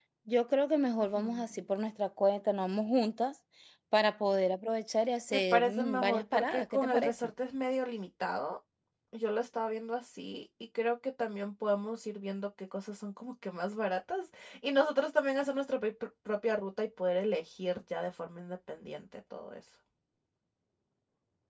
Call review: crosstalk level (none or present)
present